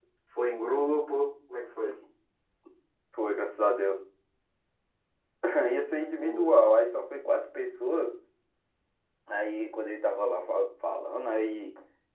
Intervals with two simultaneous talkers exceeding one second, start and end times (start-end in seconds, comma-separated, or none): none